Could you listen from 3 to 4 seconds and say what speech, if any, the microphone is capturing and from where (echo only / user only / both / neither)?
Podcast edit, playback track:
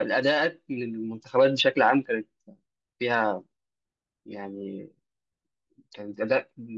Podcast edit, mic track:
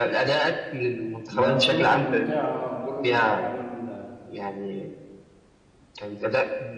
both